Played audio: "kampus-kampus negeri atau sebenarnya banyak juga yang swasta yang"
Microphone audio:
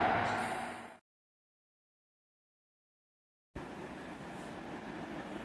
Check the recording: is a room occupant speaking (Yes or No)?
No